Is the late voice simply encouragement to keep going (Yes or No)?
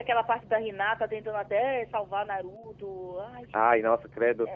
No